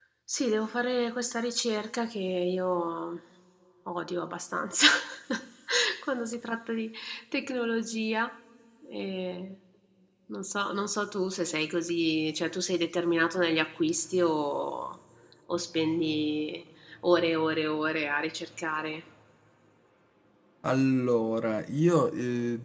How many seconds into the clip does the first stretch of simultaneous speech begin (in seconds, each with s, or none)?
none